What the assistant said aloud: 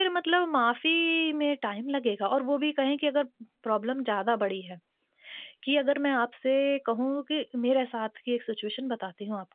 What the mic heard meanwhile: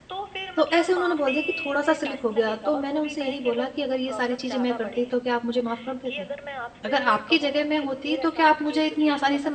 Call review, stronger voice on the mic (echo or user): user